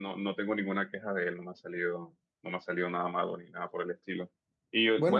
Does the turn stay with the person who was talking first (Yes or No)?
Yes